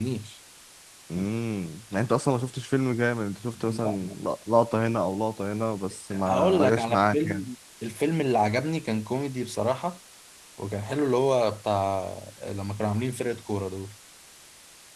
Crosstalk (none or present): present